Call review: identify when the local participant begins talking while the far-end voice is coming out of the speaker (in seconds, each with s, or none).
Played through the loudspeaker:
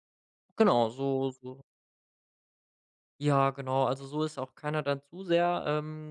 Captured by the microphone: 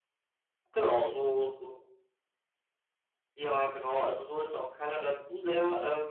none